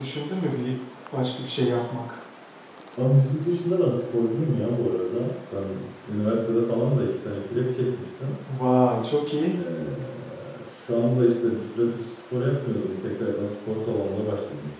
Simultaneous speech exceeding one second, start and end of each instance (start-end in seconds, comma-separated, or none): none